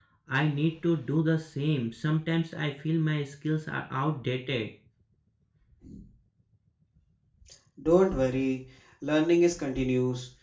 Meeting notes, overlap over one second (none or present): none